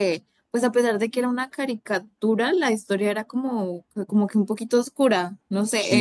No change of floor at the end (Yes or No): Yes